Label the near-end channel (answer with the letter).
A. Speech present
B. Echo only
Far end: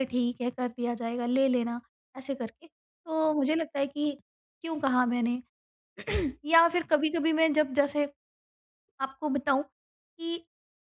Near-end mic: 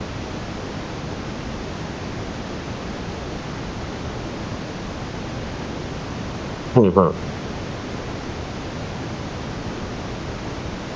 A